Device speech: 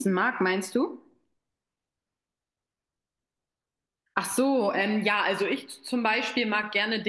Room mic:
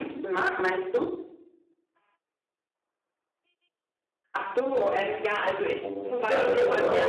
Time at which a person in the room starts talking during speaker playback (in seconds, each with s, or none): 5.8 s